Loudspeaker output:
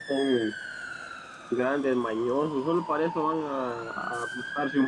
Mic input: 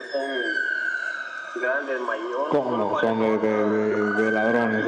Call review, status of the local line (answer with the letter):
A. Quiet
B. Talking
B